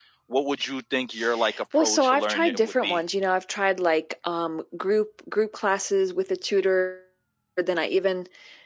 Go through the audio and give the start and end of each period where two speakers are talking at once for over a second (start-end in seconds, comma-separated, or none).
1.8-3.0